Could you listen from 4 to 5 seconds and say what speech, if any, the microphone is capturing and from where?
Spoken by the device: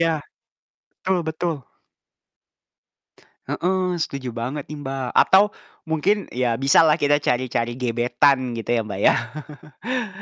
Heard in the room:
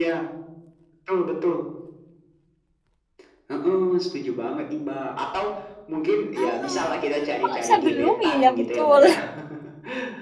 echo only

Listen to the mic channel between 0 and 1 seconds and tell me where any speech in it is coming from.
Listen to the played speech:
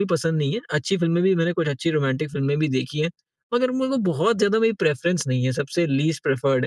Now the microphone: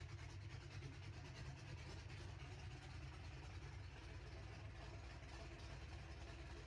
neither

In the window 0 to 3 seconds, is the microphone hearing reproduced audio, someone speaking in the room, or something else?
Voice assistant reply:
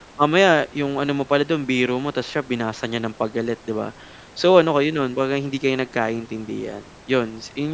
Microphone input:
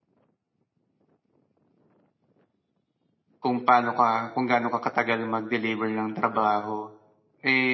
neither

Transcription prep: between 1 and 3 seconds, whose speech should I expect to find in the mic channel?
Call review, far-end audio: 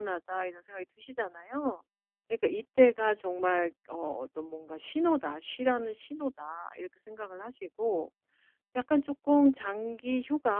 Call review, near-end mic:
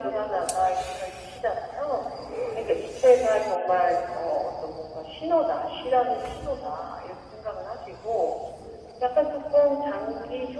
echo only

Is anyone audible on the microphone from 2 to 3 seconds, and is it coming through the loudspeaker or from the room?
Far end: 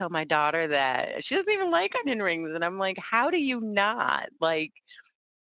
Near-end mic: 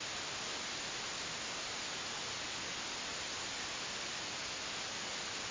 neither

